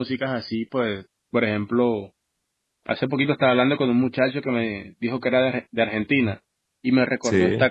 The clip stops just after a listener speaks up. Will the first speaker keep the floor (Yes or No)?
Yes